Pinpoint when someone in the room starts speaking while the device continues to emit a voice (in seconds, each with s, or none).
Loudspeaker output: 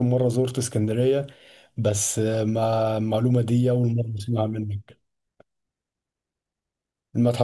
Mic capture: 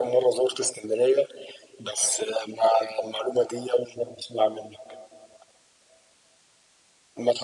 none